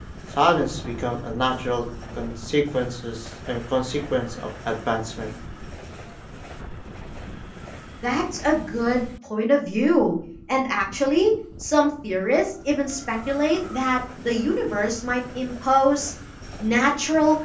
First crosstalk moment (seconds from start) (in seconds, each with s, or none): none